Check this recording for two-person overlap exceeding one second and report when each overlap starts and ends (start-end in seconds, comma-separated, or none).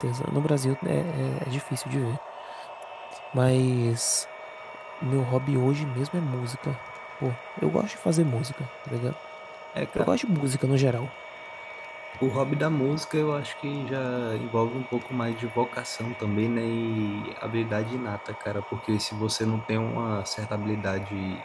none